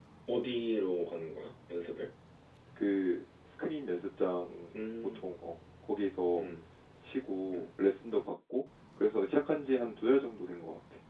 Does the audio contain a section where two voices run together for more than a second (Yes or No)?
No